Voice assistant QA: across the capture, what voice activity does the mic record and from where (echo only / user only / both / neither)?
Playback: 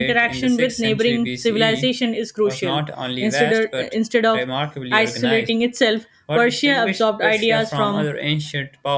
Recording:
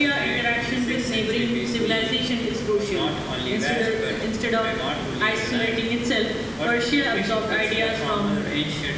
echo only